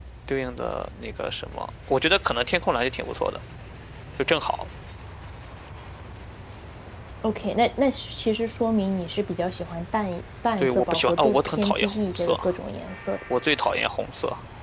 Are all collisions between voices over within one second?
No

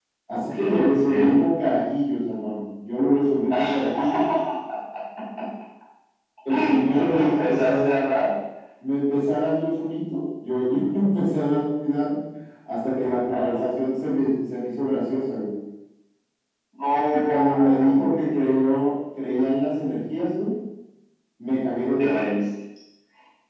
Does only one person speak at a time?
No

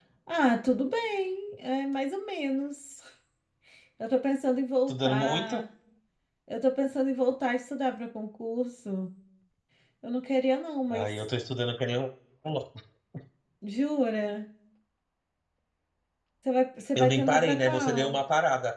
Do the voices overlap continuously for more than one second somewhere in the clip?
Yes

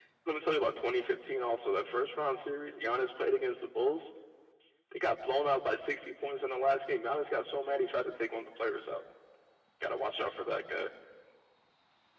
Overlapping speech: No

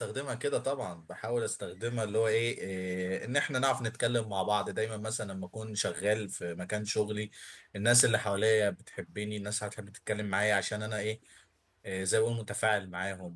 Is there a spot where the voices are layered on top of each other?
No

